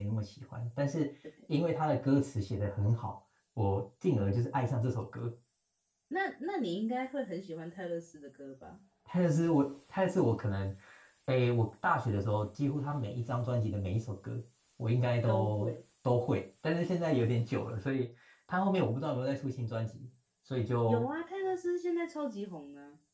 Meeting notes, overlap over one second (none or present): none